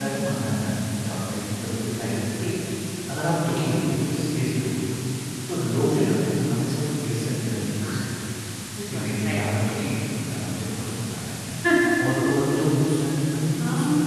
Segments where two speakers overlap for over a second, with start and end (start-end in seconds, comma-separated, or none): none